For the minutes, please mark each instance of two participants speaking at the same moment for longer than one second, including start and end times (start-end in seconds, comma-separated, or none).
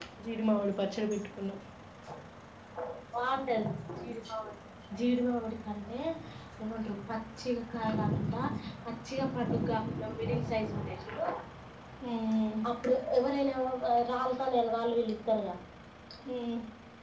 none